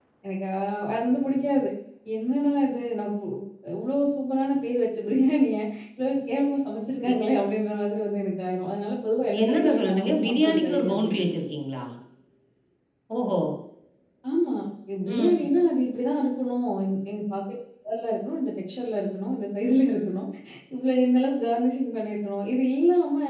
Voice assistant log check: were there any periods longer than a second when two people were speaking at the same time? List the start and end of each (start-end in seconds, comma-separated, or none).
9.4-11.1